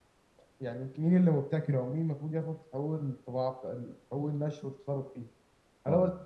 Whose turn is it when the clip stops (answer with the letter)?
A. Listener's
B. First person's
B